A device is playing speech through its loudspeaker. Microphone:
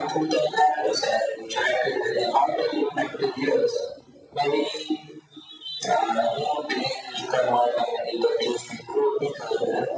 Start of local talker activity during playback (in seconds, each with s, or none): none